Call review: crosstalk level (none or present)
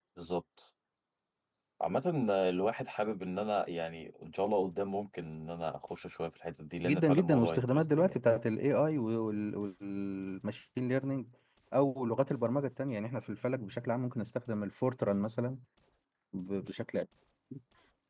present